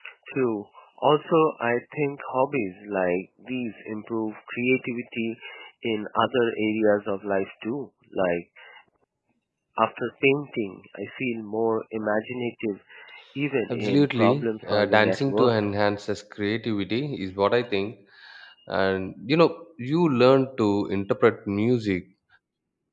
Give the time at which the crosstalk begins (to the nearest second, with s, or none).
14 s